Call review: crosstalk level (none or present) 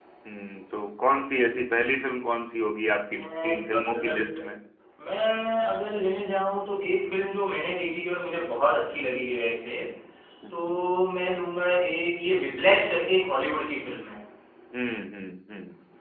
present